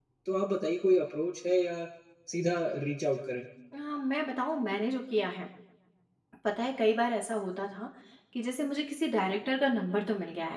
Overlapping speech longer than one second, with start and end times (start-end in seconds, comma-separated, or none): none